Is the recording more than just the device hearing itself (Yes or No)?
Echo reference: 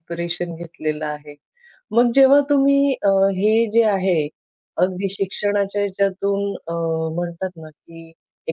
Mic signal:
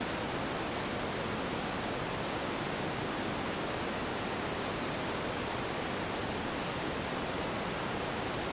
No